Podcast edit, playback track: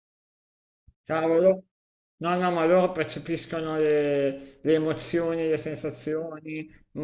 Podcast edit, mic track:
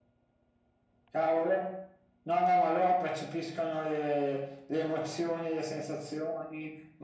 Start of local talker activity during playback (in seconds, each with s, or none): none